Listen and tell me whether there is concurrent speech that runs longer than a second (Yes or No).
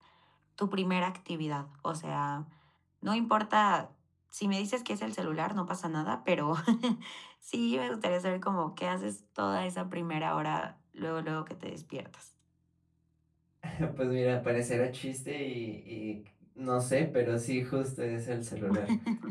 No